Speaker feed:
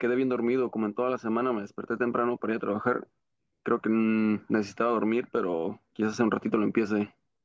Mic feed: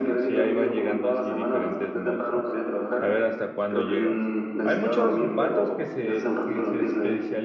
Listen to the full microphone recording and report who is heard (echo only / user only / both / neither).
both